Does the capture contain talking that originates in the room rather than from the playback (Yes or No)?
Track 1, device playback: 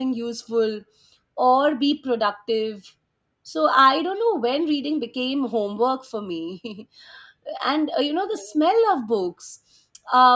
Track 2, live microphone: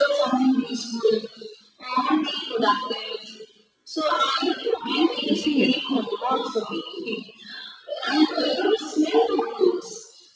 Yes